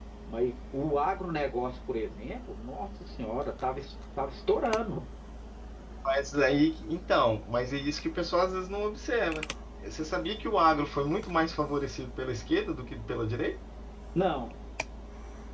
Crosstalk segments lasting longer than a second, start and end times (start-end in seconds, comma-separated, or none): none